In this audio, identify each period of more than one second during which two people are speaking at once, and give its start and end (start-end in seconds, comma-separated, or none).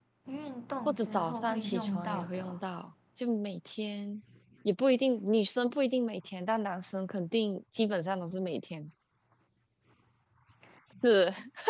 0.8-2.6